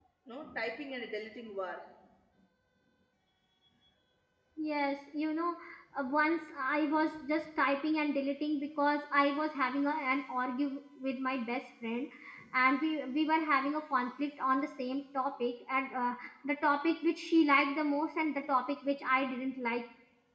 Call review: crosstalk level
none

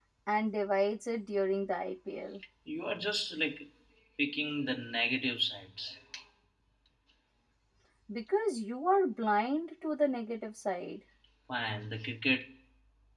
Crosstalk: none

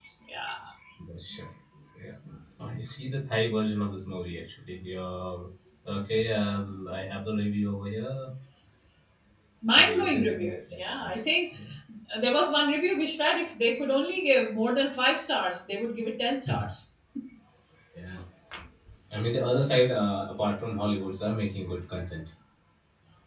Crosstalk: present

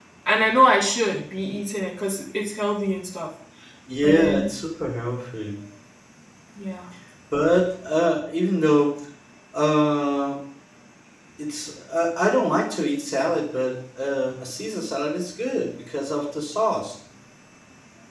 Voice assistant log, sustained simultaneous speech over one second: none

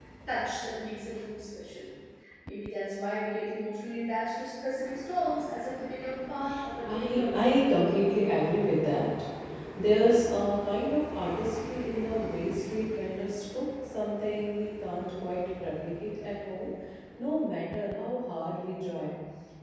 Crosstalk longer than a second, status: present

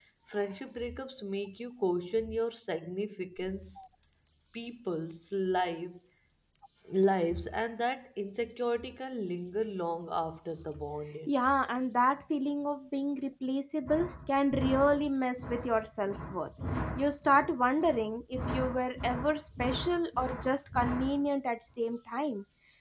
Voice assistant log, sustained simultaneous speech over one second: none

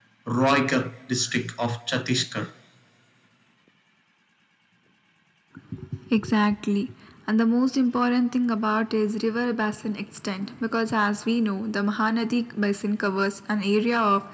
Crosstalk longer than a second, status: none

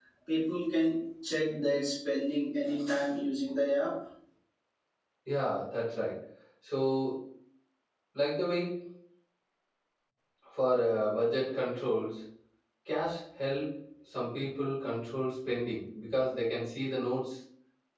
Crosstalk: none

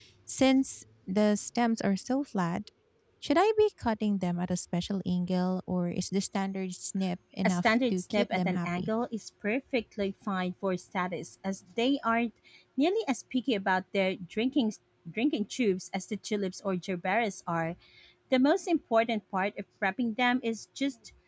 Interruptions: present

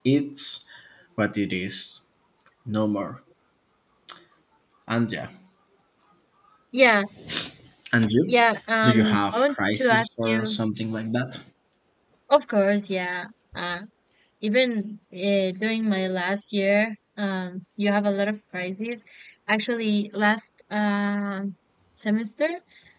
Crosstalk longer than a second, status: present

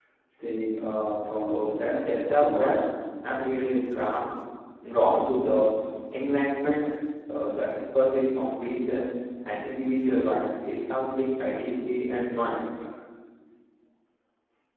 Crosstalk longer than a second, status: present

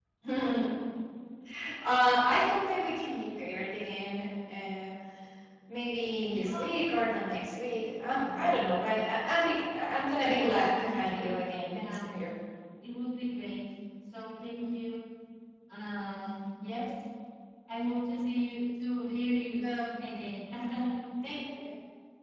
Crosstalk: present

